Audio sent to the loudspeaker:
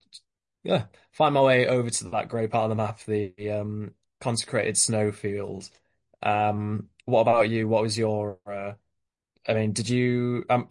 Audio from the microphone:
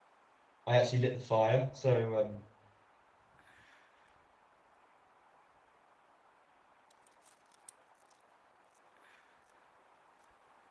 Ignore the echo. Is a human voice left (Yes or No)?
Yes